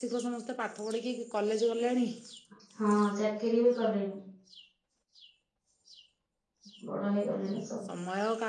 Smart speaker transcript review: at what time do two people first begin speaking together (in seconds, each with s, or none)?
none